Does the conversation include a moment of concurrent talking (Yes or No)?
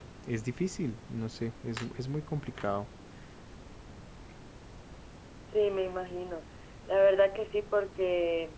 No